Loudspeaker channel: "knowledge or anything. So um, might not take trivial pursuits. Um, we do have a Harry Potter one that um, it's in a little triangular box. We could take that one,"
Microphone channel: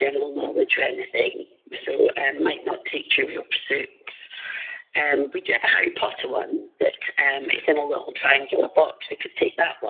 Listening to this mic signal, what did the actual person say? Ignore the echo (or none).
none